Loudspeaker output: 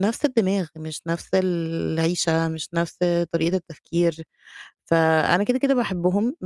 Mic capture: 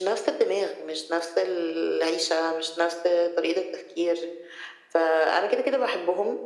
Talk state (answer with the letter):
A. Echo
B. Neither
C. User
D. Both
A